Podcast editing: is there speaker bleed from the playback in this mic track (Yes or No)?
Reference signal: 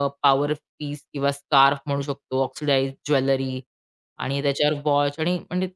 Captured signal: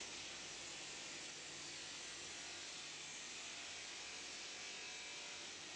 No